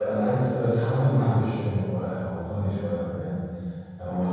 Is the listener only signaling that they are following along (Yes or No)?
Yes